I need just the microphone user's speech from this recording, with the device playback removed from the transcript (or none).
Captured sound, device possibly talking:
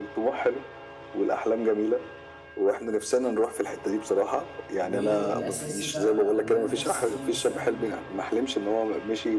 والاساسي بقى او اللي انا نفسي فيه مثلا